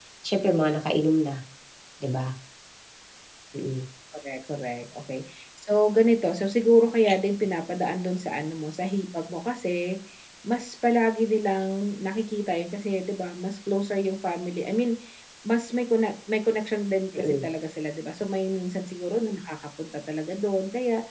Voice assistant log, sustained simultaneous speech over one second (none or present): none